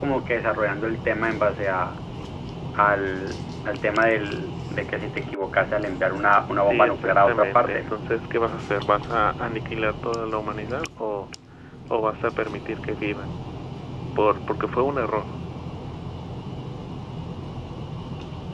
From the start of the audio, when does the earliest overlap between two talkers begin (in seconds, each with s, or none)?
6.6 s